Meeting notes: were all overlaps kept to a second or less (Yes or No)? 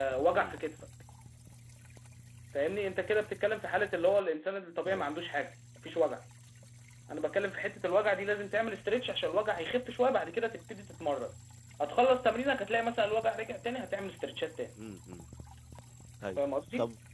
Yes